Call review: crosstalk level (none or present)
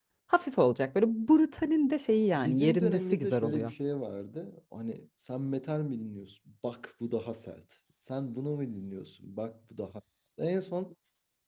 present